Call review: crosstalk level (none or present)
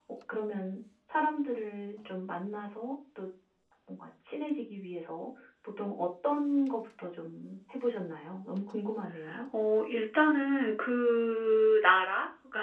none